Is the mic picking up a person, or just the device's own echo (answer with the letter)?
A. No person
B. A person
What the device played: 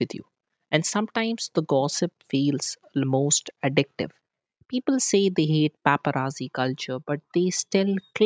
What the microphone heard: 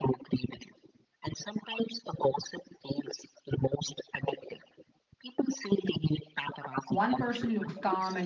B